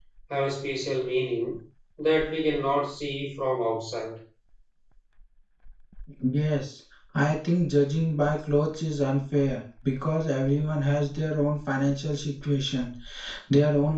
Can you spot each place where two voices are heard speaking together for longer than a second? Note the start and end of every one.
none

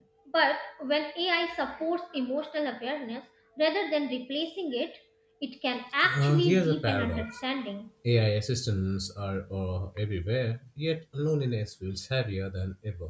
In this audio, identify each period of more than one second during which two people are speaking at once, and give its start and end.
6.0-7.4

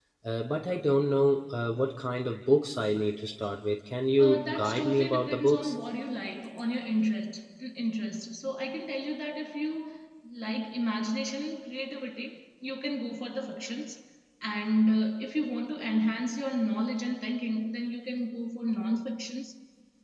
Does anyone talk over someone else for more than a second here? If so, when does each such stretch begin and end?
4.2-5.7

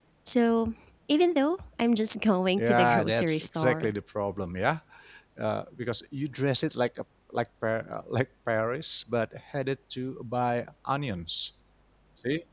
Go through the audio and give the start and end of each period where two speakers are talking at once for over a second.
2.6-3.9

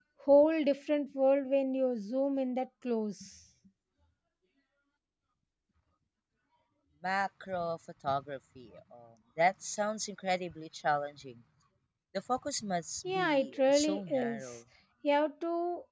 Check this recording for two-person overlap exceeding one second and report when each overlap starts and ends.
13.0-14.6

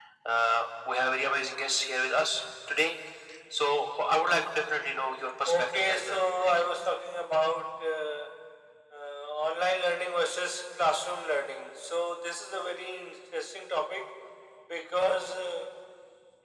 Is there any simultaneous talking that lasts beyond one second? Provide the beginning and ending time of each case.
5.5-6.7

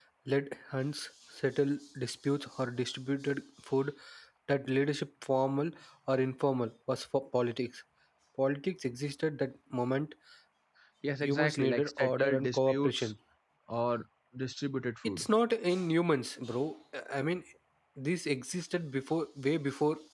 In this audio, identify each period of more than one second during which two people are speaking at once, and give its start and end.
11.2-13.1

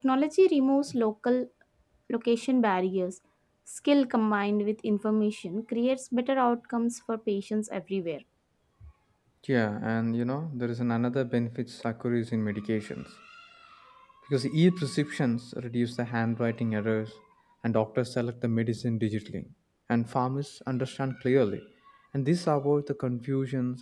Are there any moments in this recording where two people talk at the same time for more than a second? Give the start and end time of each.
none

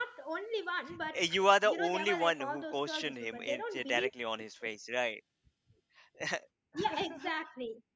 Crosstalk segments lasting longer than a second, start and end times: 1.6-4.1

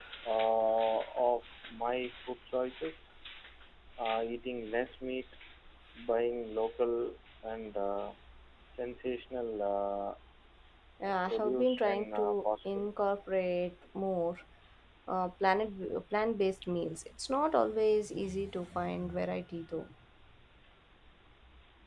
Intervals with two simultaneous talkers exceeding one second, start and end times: 11.3-12.8

